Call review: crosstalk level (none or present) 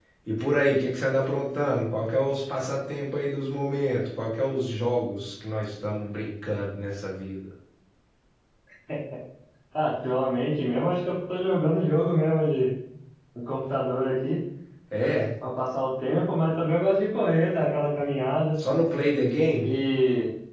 none